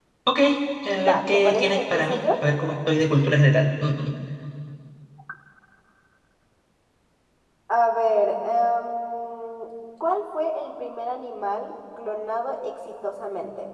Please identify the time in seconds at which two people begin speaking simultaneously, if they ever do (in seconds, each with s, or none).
0.9 s